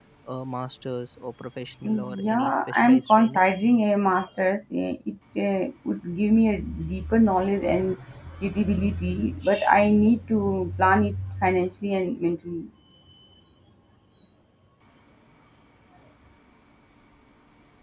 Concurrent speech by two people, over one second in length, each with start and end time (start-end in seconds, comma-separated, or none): 1.8-3.4